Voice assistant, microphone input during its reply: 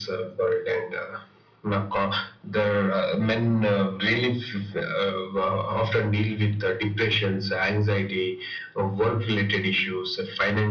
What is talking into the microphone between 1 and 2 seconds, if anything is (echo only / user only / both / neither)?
echo only